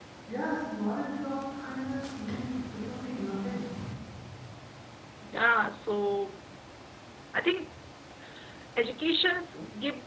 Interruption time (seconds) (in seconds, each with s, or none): none